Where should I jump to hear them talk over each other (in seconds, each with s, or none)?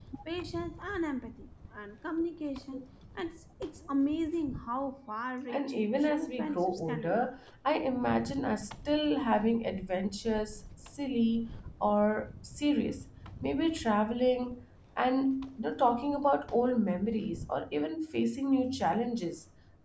5.5 s